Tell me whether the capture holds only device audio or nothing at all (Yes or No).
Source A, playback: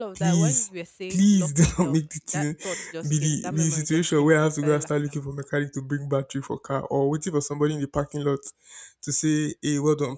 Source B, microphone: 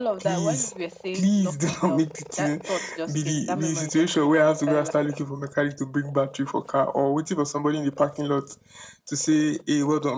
Yes